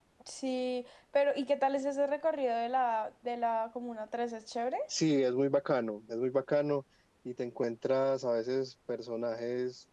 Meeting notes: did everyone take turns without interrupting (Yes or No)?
Yes